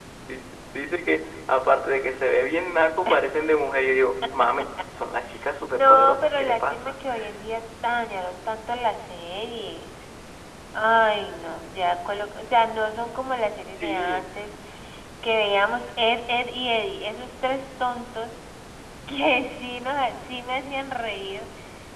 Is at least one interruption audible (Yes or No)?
Yes